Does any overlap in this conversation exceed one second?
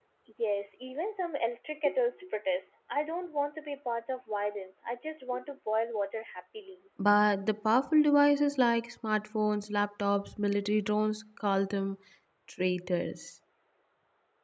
No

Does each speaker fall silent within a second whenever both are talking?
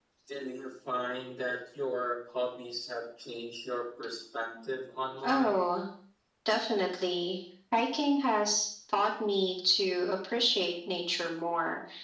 Yes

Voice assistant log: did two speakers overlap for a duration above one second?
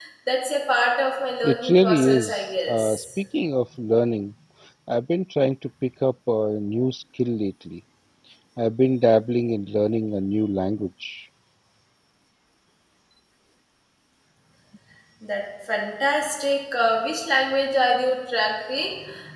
Yes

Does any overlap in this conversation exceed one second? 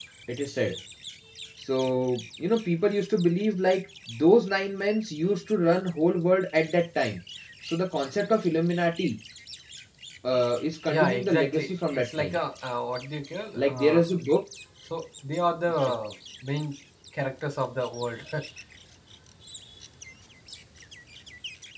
Yes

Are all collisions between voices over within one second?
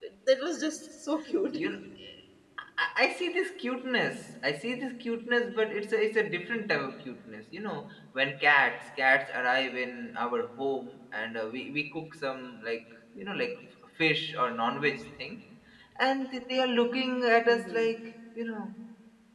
Yes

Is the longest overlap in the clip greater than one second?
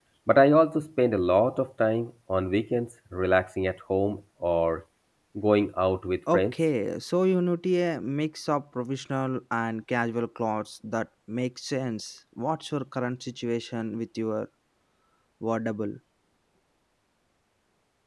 No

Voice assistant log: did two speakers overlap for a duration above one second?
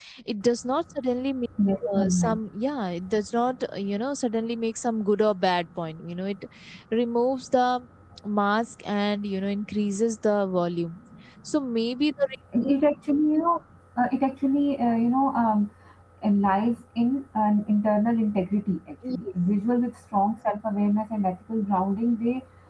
No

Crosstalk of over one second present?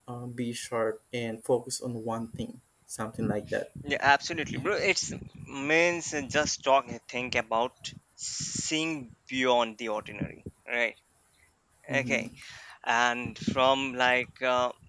No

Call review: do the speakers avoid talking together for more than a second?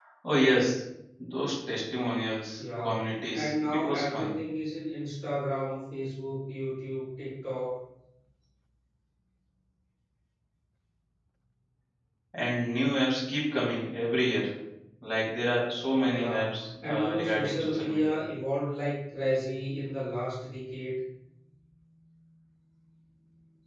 No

